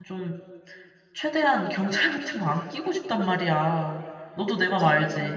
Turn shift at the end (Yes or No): Yes